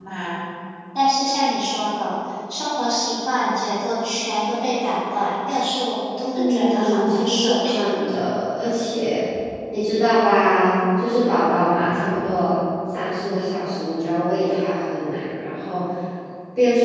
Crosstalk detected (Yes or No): Yes